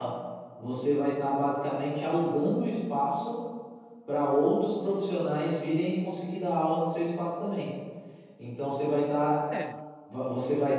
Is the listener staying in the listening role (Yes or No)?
Yes